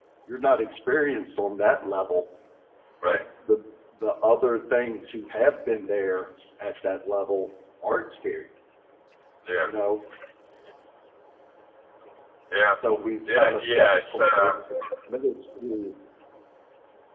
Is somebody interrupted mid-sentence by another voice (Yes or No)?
Yes